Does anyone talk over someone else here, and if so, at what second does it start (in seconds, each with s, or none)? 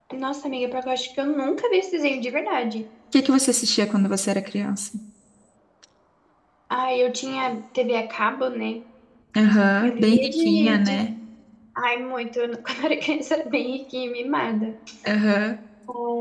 9.8 s